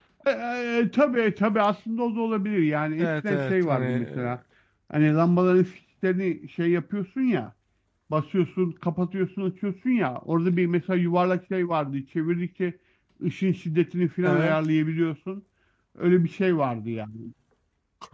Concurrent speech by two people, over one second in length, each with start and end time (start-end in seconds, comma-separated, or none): 3.0-4.3